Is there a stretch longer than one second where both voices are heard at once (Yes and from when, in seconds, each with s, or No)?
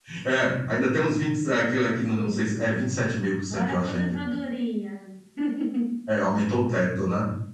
Yes, from 1.4 s